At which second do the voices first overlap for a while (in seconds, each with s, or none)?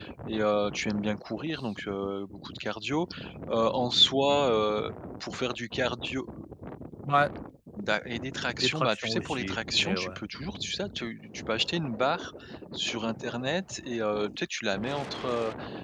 8.5 s